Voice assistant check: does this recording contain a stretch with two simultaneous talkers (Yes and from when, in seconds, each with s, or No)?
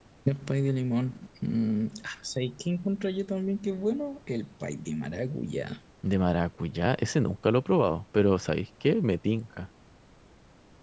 No